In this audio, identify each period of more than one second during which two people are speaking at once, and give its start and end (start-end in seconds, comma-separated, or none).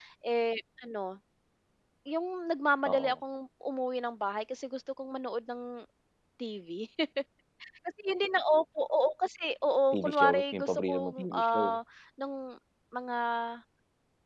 9.9-11.8